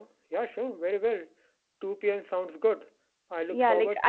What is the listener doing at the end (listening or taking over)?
taking over